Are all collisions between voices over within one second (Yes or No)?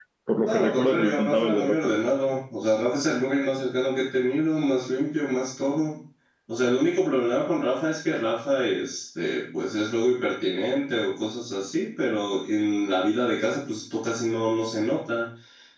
No